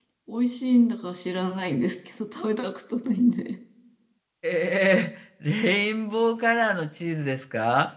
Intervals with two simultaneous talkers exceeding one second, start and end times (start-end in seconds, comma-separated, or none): none